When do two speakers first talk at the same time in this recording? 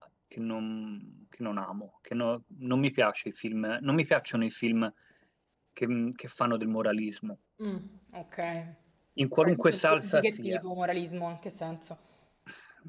9.4 s

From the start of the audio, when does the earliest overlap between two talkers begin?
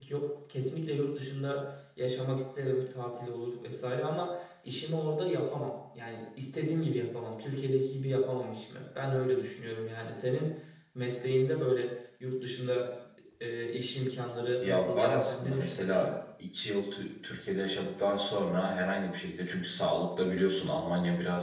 14.6 s

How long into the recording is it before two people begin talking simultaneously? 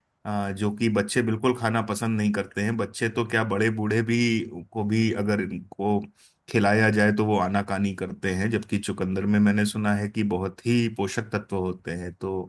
none

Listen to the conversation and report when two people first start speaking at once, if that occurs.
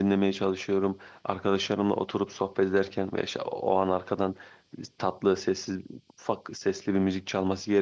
none

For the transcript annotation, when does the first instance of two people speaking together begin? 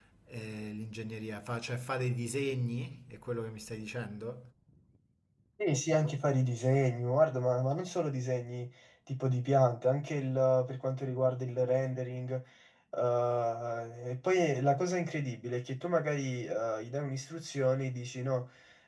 none

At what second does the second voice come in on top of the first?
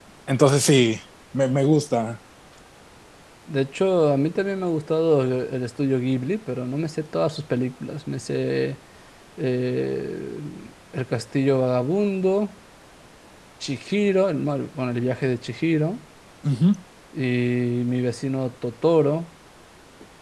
none

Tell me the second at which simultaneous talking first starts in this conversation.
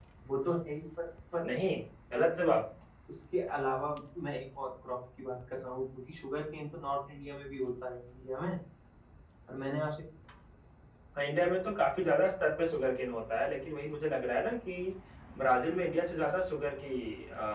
none

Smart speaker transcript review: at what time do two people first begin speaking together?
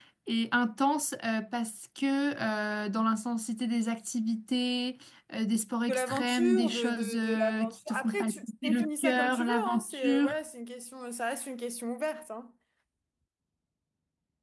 5.9 s

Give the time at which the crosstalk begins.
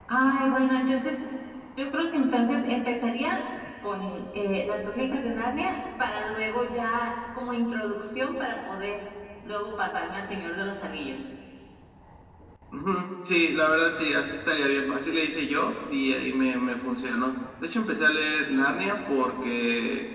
none

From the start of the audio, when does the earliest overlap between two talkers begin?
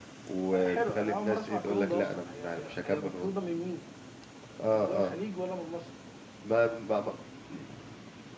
0.5 s

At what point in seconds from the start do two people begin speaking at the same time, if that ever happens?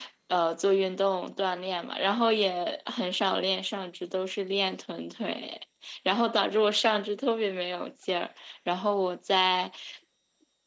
none

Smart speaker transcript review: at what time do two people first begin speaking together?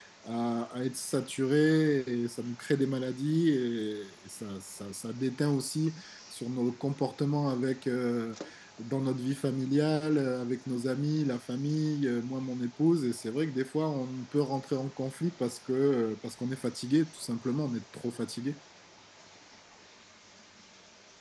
none

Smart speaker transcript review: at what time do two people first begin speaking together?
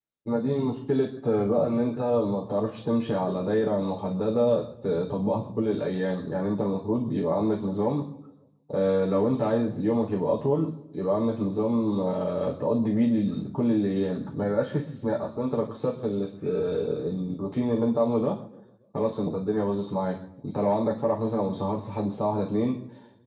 none

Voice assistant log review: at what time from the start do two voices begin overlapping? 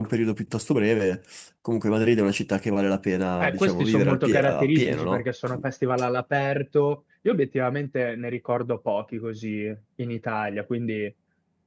3.4 s

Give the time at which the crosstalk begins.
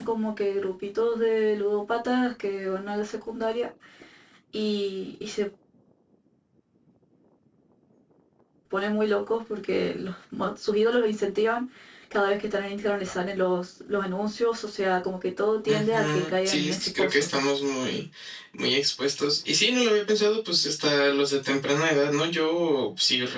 15.7 s

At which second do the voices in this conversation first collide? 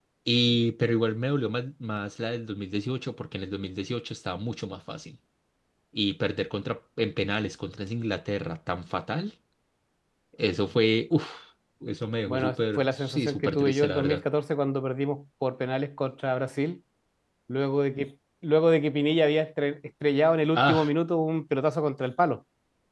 12.3 s

